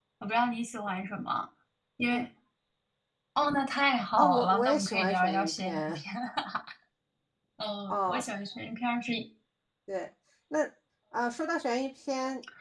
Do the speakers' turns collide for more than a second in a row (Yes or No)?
Yes